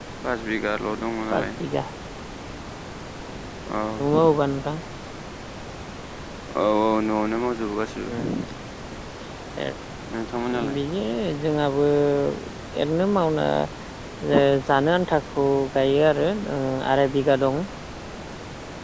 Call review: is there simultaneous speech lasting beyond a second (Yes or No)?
No